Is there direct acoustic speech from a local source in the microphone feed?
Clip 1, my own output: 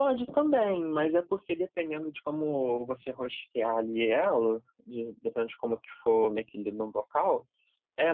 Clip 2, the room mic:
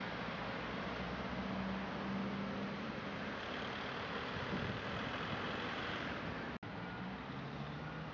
No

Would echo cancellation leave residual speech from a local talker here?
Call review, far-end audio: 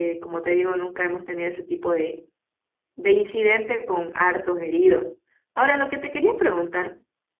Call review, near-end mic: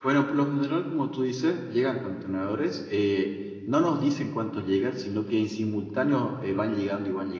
Yes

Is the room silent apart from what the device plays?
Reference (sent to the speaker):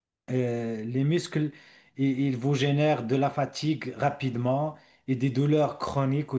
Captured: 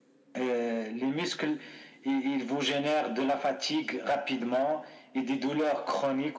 Yes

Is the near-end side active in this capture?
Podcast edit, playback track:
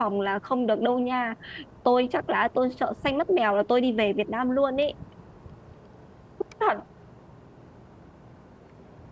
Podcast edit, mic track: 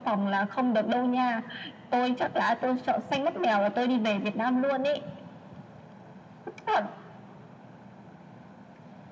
No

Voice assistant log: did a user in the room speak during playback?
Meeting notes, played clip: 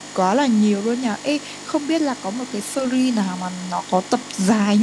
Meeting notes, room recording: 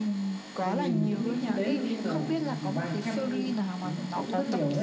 Yes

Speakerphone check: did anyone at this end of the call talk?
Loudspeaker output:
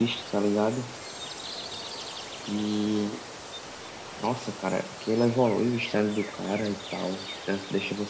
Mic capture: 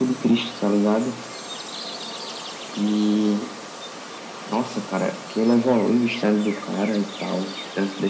No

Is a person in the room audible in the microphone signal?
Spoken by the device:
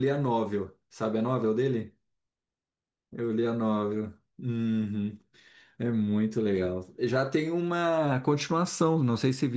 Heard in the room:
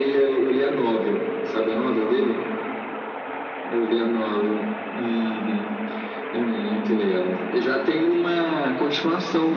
No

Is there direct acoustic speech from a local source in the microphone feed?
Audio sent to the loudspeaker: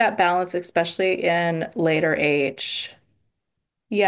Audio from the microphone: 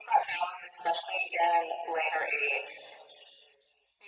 No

